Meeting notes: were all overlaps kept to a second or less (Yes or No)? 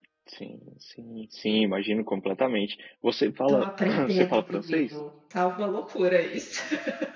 No